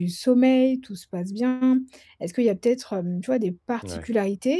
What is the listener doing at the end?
listening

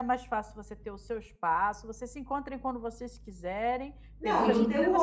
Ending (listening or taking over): taking over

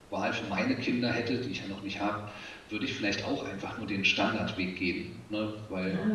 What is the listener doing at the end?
taking over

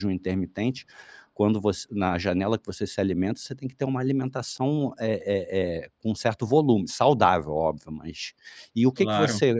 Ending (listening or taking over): listening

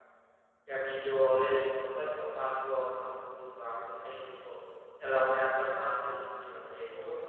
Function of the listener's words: taking over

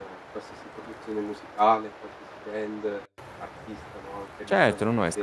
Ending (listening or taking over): taking over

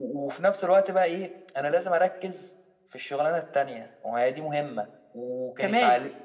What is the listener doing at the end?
listening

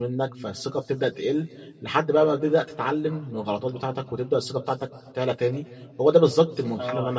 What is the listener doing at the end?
taking over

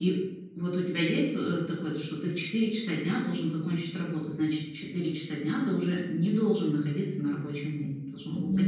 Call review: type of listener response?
taking over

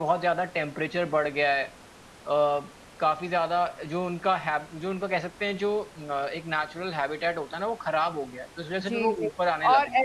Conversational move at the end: taking over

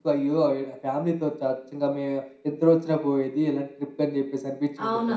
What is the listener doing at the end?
taking over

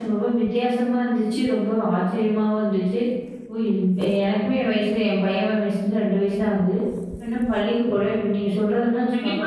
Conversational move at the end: taking over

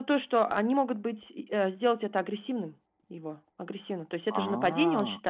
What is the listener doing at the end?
listening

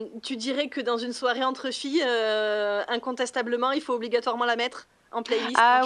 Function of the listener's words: taking over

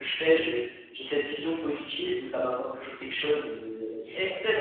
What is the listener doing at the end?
taking over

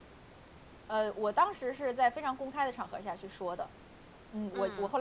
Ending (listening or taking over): listening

